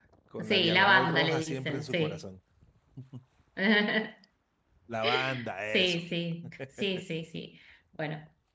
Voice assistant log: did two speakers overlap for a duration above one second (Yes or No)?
Yes